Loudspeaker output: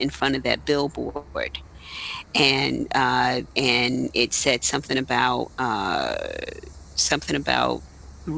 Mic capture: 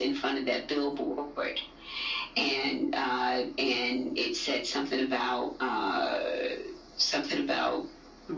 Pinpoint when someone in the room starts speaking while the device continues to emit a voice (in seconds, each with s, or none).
none